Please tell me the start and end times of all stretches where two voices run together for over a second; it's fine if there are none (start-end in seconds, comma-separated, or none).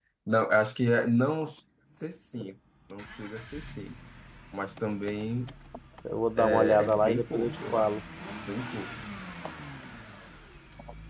6.4-7.9